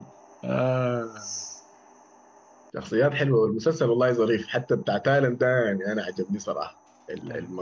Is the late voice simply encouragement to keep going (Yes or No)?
Yes